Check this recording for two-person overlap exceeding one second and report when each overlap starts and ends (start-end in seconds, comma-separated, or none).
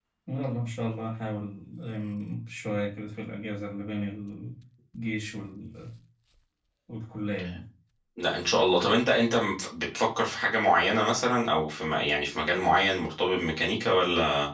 none